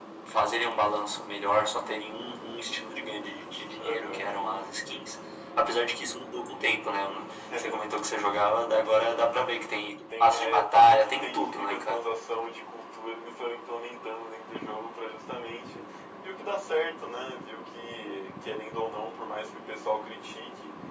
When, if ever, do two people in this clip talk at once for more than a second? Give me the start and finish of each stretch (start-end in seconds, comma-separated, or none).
10.2-12.0